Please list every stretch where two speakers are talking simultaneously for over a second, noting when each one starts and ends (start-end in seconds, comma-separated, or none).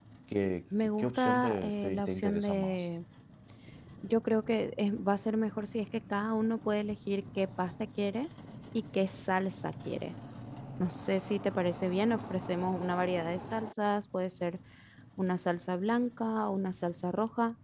0.8-2.9